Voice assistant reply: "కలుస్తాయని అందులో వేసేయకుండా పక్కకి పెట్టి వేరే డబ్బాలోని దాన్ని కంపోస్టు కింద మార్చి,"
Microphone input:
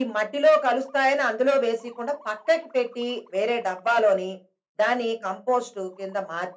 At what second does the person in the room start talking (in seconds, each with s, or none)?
none